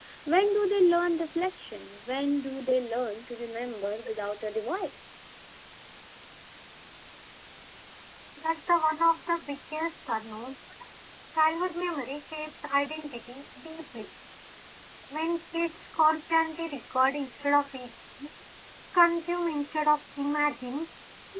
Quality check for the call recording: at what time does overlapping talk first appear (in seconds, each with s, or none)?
none